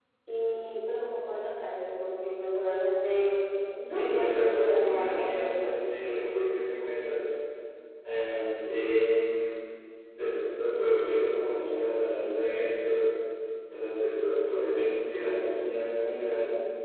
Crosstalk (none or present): present